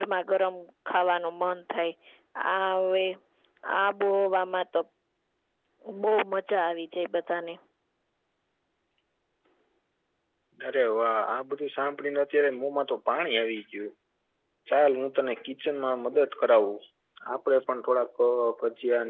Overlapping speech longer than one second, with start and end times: none

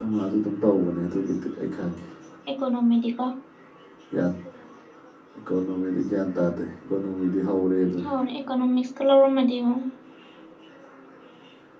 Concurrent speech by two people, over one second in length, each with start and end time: none

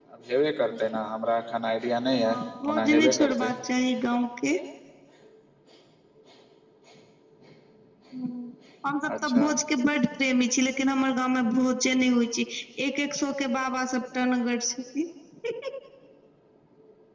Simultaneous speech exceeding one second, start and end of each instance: 2.2-3.5

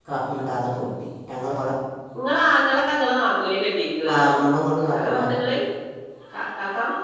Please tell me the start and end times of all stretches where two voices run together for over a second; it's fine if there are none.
none

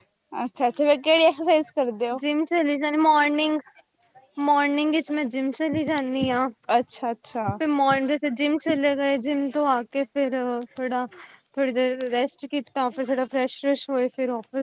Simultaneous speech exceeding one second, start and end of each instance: none

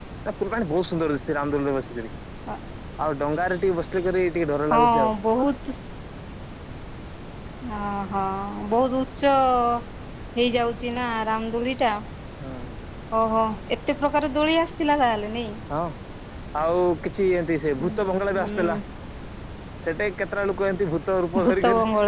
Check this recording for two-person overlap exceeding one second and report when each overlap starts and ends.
none

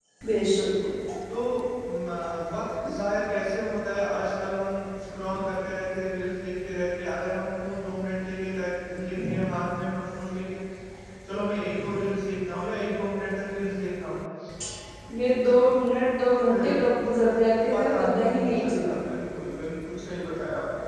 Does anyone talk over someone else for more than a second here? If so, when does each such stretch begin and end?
17.7-19.0

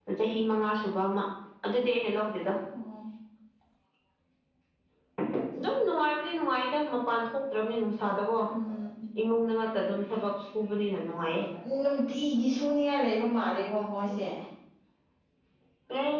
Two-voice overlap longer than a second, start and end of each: none

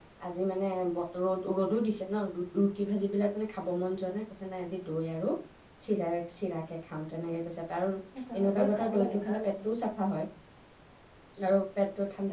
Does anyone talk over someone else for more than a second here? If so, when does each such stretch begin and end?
8.4-9.7

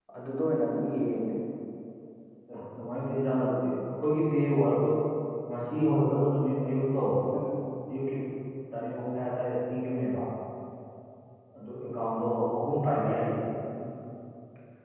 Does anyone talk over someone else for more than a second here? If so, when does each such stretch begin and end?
none

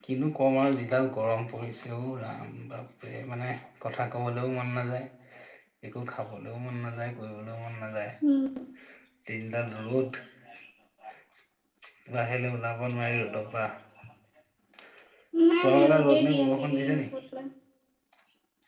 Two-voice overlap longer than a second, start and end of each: 15.6-17.0

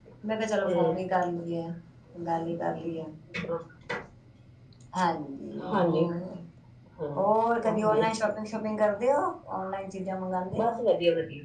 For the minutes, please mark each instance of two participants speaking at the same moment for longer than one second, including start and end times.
none

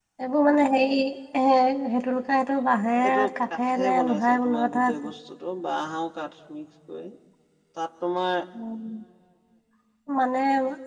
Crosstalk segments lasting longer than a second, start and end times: 3.1-5.1

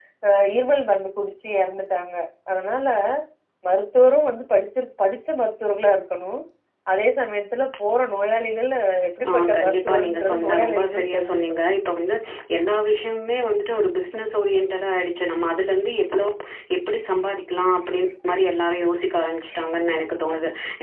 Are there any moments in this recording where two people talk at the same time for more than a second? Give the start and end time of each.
9.3-11.6

